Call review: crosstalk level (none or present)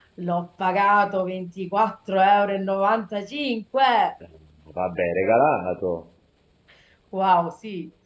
none